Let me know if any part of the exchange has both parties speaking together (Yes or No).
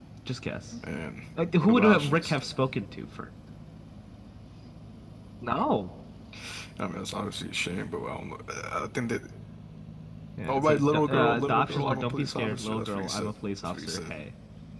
Yes